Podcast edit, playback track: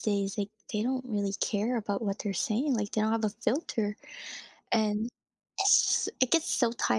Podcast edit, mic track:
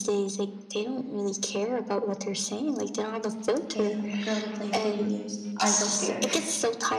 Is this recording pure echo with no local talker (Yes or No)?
No